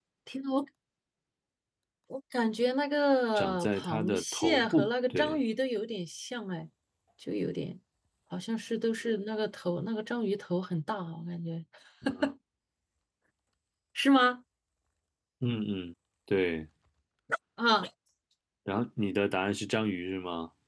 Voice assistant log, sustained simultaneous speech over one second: present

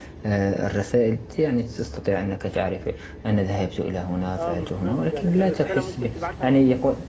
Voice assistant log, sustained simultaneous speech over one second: present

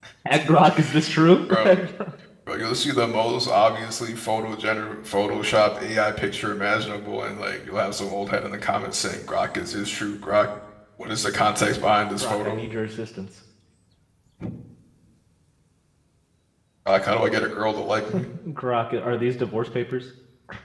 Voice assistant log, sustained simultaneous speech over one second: none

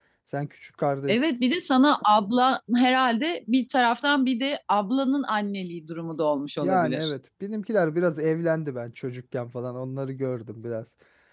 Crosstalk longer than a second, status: none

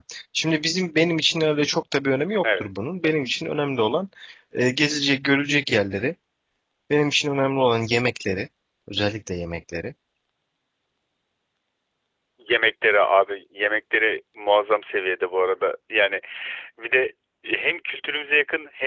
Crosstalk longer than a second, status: none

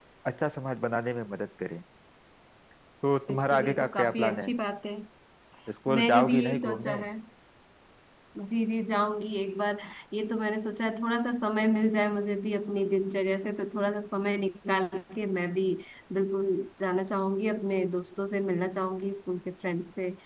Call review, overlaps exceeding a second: present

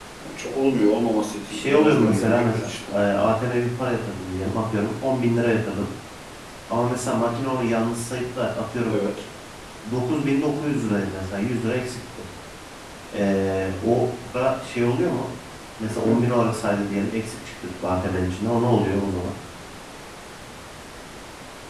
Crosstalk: present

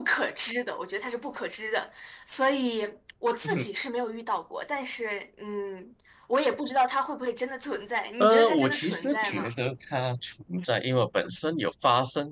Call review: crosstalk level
present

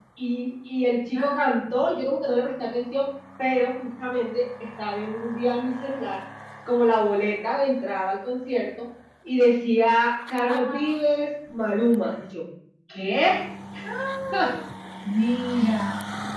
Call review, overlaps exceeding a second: none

